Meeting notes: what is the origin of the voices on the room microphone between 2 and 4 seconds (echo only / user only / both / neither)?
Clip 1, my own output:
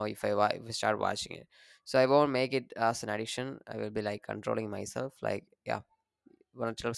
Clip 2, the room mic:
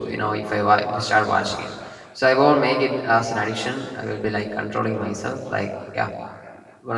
echo only